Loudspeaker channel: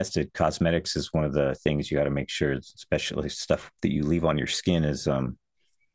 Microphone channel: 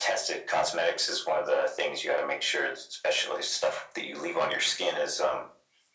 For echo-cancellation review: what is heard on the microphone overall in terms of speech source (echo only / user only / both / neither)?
echo only